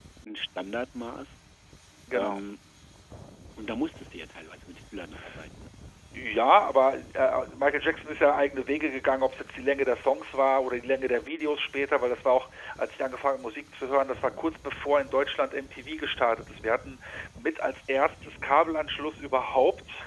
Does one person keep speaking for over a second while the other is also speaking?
No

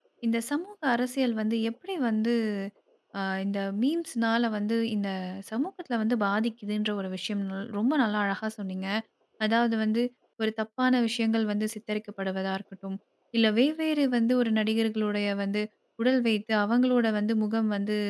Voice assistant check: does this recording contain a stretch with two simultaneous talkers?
No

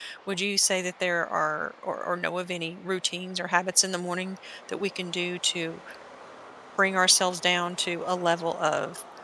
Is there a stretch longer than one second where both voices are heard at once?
No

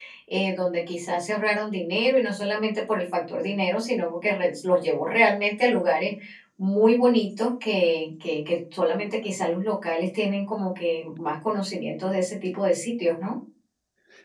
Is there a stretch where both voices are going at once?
No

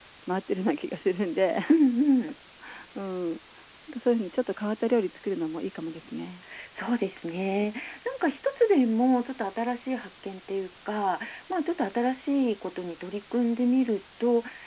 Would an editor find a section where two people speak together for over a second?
No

